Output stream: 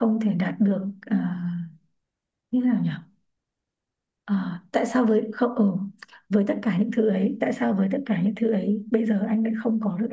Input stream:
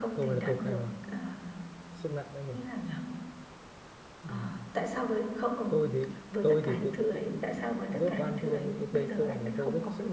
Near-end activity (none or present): present